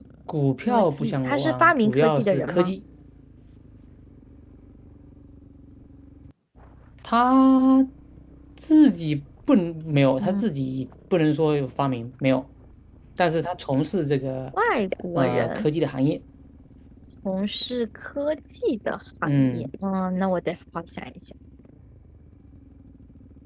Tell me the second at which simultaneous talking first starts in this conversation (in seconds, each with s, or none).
0.7 s